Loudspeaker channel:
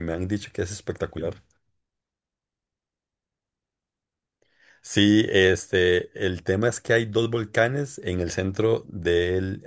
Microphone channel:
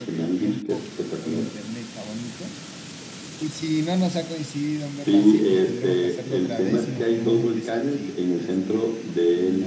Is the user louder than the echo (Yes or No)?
No